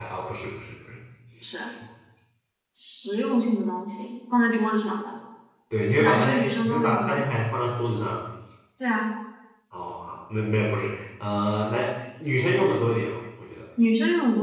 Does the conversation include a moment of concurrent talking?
Yes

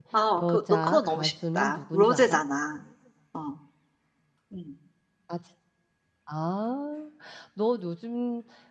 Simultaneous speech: Yes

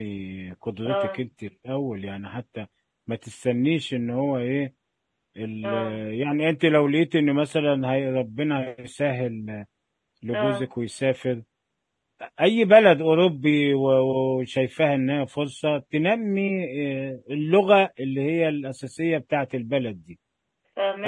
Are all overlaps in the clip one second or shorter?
Yes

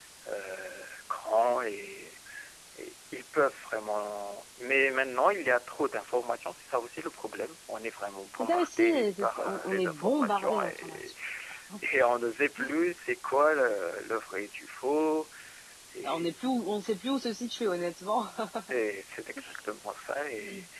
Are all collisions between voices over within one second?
No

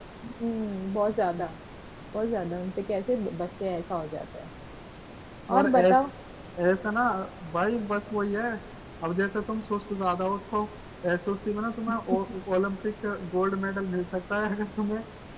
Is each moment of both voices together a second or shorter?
Yes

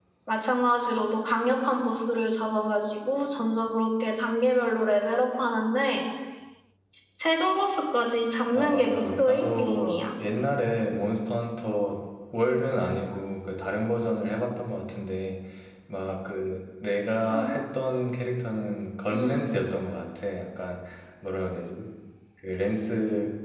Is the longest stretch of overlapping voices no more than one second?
No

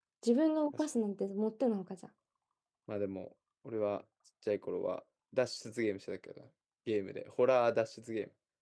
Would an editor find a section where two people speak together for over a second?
No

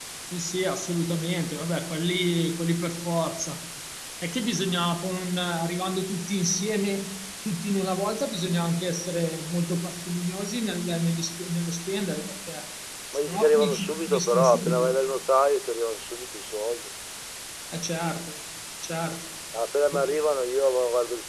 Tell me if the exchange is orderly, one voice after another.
No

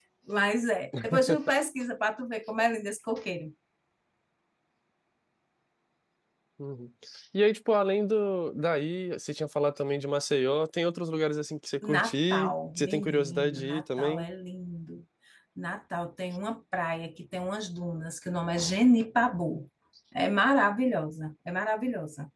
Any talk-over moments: Yes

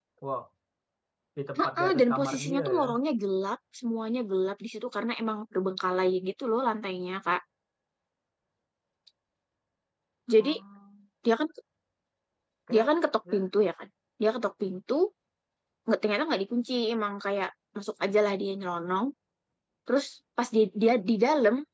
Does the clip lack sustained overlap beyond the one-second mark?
No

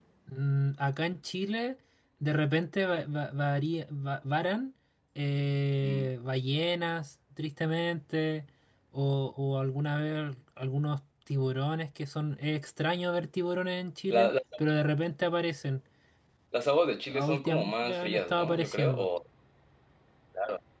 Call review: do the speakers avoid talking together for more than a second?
No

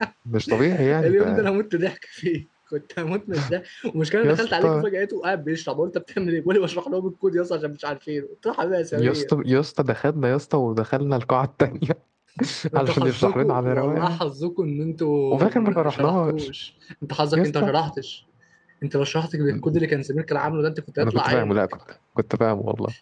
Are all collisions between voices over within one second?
No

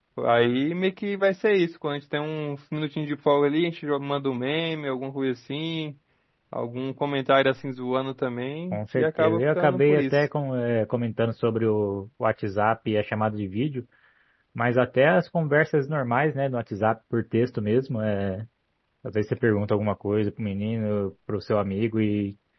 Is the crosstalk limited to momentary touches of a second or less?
No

